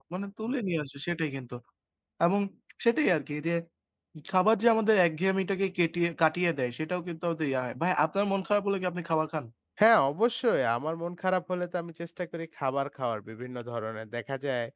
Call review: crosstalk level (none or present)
none